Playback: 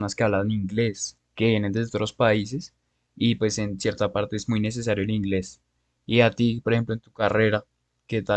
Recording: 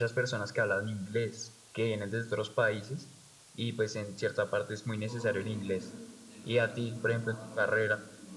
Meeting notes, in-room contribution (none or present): present